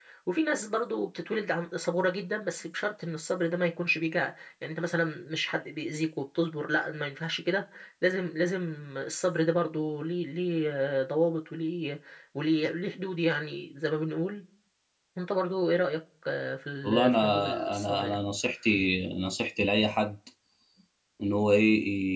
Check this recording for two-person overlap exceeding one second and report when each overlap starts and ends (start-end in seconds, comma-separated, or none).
16.8-18.2